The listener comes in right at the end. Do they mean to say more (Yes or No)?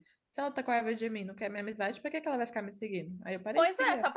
Yes